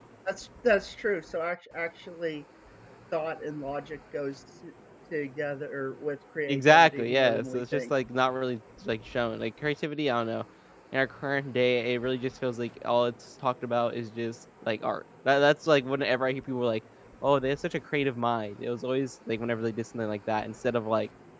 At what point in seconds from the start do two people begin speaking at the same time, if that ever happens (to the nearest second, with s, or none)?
6 s